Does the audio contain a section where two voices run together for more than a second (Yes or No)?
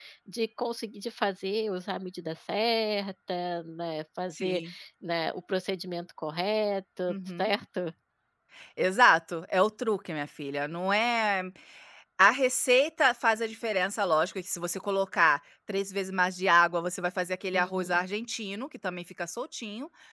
No